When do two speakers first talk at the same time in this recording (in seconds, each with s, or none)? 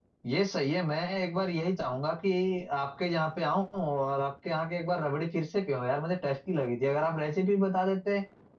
none